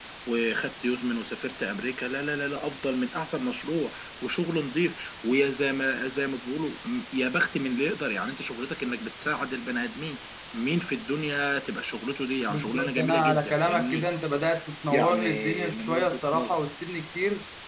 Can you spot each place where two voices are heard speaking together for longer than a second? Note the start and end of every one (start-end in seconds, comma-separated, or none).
12.5-14.1, 14.9-16.6